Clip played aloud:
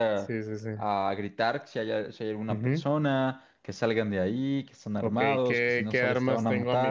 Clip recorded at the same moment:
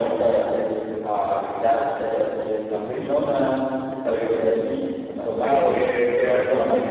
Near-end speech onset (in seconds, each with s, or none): none